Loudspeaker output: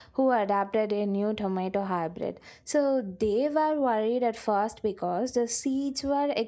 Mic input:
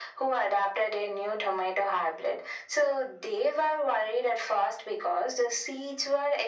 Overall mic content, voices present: echo only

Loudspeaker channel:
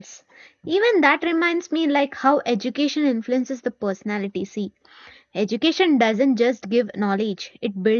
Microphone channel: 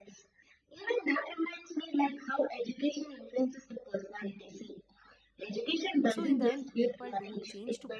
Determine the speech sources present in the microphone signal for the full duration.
both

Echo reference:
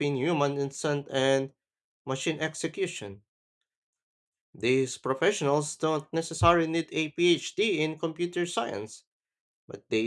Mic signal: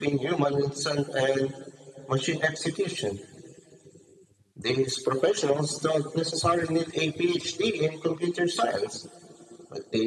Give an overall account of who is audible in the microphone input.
echo only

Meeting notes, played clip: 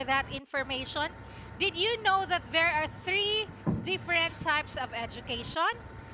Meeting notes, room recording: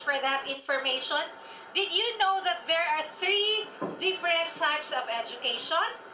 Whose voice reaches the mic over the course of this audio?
echo only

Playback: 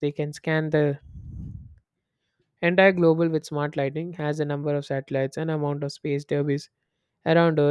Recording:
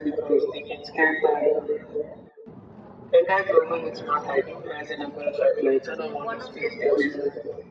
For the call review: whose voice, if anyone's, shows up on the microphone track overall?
both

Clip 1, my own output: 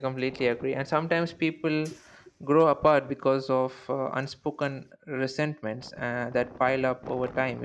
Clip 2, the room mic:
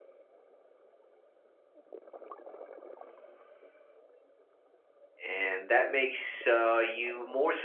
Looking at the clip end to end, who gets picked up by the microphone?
user only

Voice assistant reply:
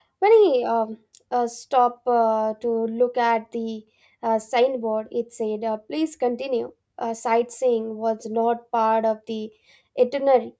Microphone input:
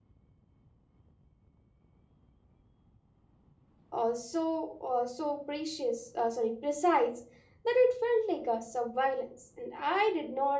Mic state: user only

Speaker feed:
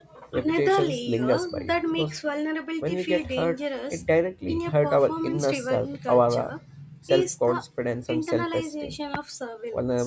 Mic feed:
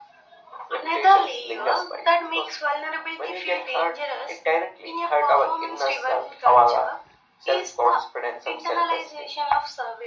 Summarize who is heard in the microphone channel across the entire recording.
echo only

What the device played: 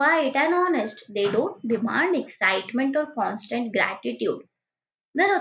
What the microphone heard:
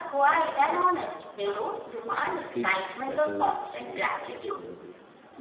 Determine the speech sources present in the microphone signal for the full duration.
both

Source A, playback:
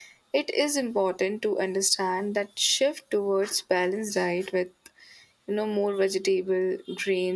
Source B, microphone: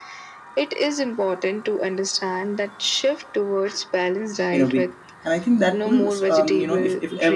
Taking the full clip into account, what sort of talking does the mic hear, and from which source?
both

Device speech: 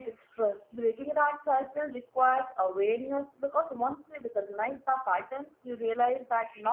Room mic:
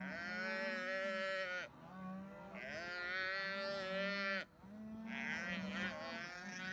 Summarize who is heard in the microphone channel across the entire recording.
neither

